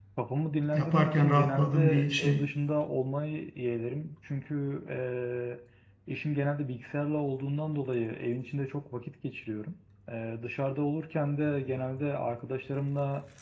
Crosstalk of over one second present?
Yes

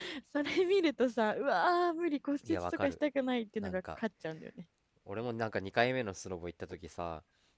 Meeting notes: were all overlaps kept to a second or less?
Yes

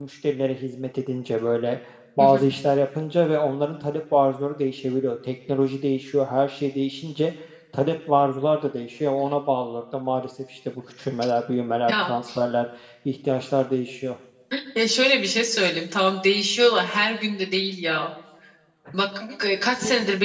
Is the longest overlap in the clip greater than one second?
No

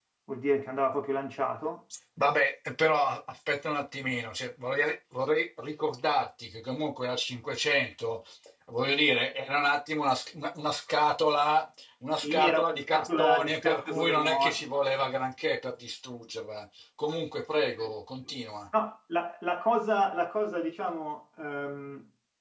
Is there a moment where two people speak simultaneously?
Yes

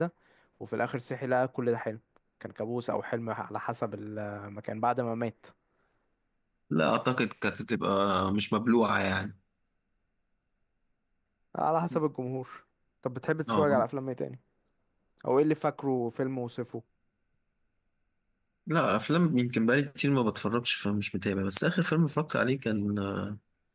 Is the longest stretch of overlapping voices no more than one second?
Yes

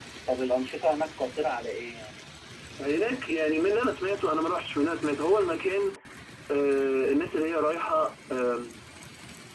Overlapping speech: No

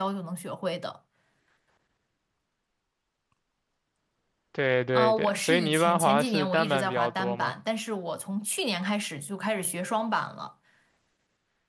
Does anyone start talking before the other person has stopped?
Yes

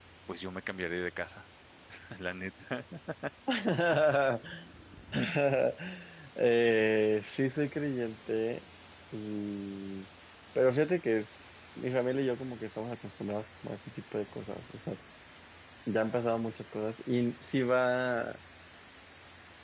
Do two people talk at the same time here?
No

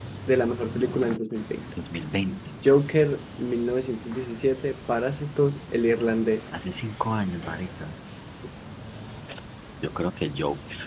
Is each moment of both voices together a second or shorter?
Yes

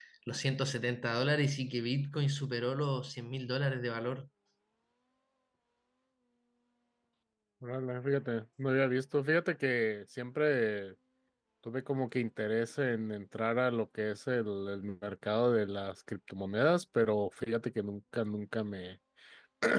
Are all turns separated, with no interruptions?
Yes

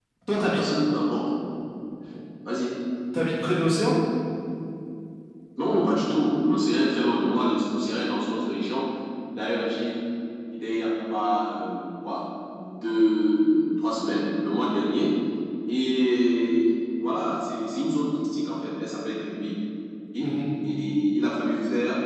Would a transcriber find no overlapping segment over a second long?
Yes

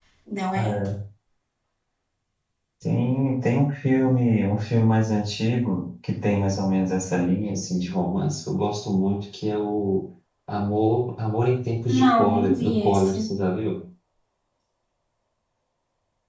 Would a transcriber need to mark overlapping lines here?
Yes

